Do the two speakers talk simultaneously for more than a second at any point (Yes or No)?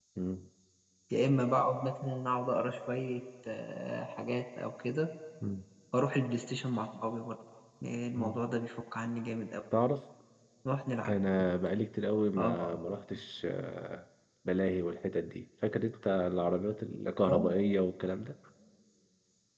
No